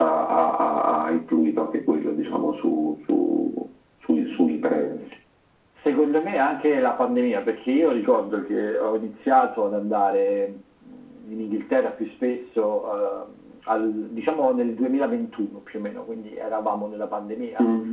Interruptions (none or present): none